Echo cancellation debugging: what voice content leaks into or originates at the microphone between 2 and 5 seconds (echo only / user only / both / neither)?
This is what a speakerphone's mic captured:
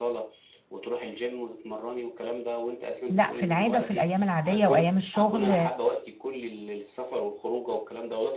both